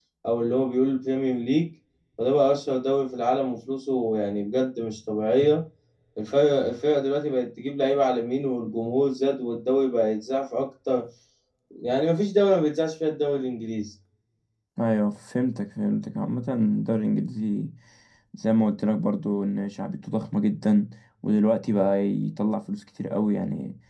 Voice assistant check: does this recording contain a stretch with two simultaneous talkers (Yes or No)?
No